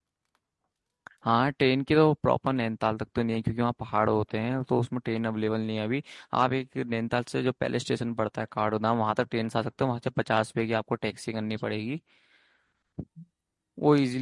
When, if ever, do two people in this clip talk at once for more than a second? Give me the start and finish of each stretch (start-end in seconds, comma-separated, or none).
none